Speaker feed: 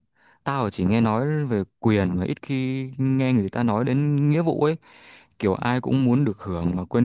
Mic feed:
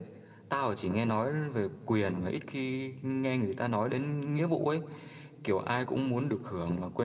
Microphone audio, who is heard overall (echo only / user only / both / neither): echo only